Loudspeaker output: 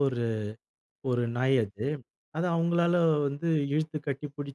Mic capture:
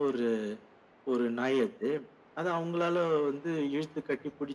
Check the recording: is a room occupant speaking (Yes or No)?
No